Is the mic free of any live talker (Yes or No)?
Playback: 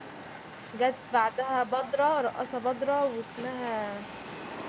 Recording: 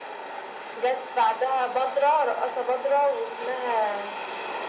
Yes